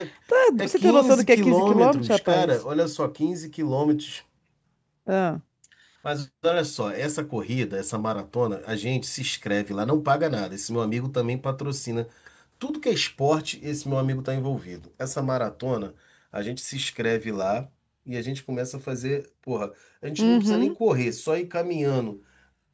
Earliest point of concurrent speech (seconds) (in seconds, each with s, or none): 0.6 s